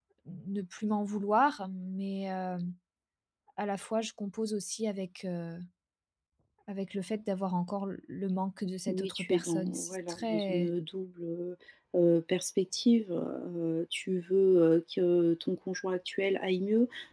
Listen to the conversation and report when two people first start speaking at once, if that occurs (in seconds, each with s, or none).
8.9 s